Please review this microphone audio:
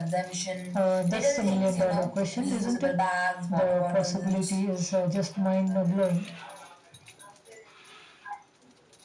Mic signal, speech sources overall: echo only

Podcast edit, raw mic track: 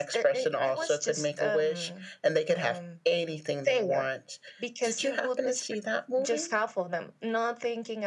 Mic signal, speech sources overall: echo only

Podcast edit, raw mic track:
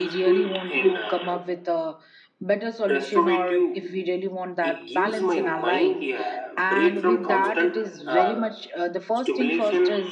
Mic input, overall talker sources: both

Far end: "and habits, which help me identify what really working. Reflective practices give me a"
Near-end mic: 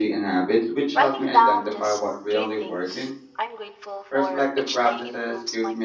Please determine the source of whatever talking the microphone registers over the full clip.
both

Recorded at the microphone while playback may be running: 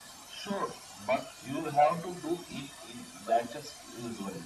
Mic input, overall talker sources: echo only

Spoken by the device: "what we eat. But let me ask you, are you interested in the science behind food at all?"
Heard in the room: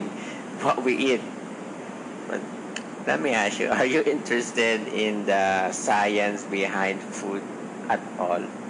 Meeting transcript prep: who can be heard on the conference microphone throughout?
echo only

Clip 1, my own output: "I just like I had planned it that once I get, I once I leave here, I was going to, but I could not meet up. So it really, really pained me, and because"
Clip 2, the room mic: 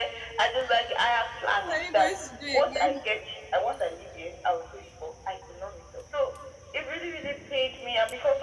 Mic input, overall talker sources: both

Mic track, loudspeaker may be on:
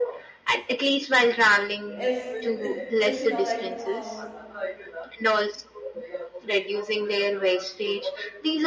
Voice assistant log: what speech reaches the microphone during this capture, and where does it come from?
both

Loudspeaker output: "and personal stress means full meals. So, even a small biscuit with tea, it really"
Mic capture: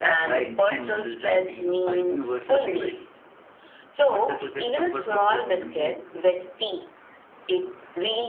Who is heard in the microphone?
both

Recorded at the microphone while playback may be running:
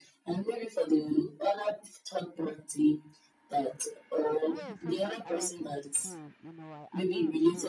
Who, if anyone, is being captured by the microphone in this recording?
both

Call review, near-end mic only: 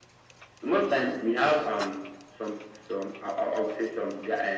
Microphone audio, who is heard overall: echo only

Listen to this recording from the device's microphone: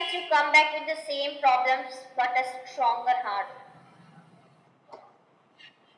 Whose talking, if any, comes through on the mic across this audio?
echo only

